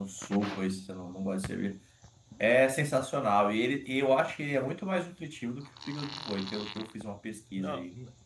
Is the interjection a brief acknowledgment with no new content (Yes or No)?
No